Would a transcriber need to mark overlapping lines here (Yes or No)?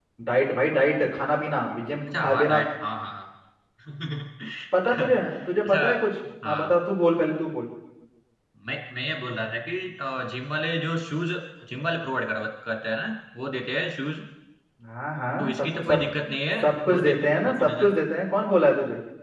Yes